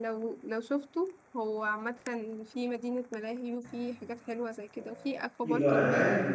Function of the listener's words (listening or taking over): taking over